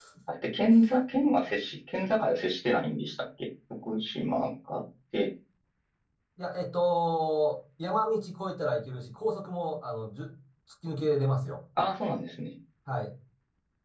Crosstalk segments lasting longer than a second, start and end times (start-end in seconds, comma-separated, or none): none